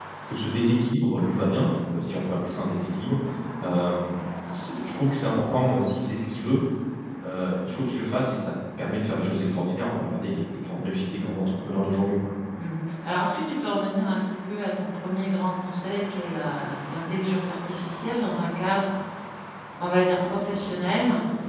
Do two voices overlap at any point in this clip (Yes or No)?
No